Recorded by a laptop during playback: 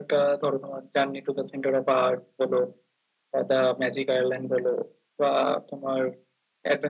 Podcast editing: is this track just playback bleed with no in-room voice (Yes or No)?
Yes